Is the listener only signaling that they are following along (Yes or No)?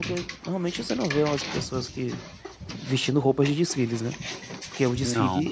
Yes